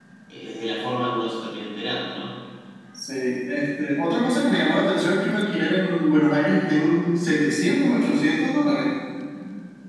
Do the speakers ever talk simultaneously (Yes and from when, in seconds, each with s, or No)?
No